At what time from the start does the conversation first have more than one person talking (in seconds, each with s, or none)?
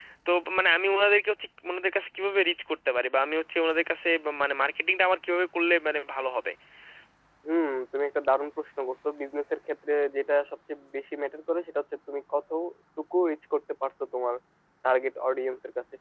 none